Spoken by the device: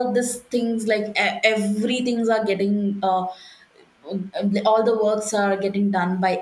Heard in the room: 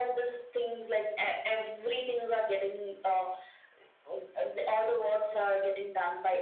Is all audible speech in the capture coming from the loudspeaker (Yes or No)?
Yes